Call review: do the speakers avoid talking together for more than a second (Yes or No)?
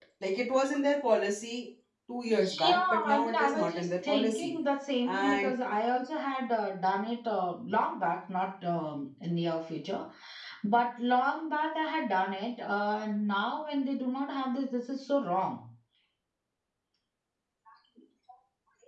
No